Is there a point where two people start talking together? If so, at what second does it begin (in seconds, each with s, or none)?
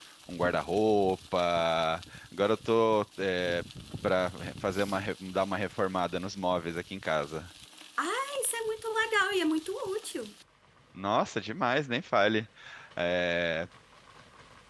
none